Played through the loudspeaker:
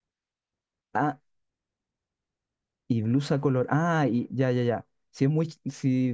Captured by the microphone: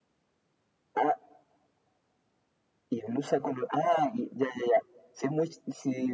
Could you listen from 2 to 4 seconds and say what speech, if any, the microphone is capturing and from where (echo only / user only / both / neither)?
echo only